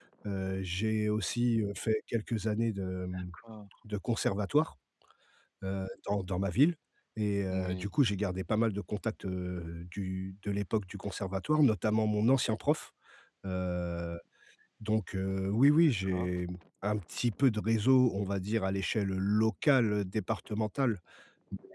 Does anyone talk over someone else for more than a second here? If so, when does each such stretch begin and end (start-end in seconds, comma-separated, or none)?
none